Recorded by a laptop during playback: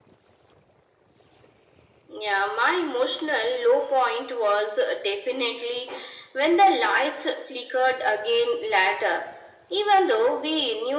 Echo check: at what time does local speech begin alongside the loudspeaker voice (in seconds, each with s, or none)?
none